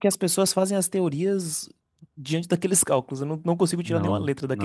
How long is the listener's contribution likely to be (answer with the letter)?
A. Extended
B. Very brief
A